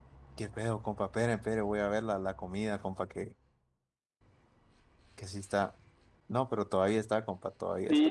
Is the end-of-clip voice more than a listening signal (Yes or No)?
Yes